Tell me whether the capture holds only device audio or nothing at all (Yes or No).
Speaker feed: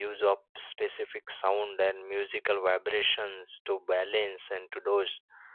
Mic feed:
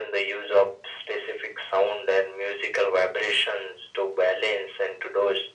Yes